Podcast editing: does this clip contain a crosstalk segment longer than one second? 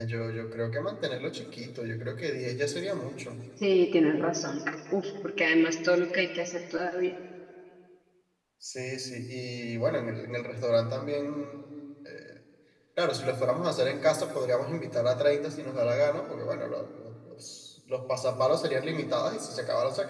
No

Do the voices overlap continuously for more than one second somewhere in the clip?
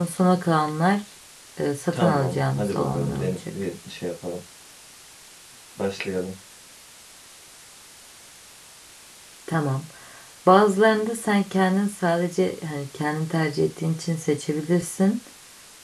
Yes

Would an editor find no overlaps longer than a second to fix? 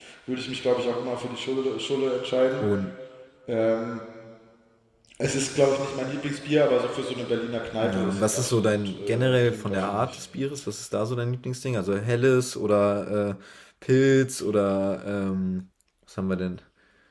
No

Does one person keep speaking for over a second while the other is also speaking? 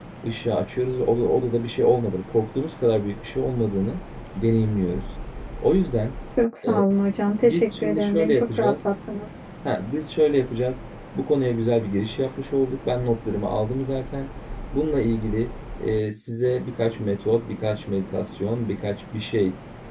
Yes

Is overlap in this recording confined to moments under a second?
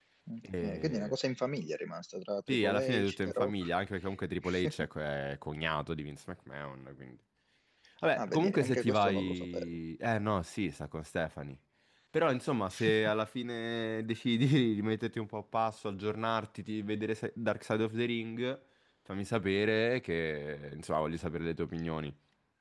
No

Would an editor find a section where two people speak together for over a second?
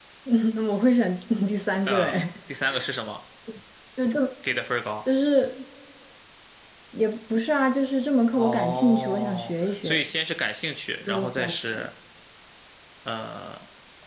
Yes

